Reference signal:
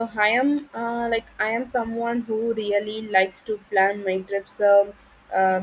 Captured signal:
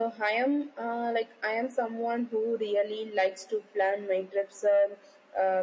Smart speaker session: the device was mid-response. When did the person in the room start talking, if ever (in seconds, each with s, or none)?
none